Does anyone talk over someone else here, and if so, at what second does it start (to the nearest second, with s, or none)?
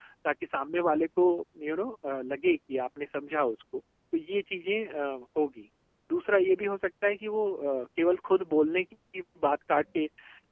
none